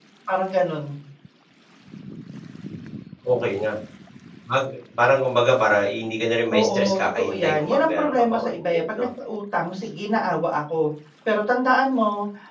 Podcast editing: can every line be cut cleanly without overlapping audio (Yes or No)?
No